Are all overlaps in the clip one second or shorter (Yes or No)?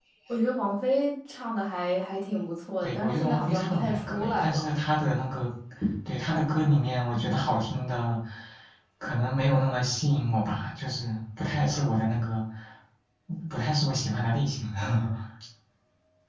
No